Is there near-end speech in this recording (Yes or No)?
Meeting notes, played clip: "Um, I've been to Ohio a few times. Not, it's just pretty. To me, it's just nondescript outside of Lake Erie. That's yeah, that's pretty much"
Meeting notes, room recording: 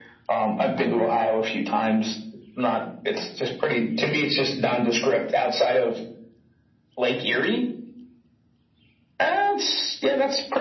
No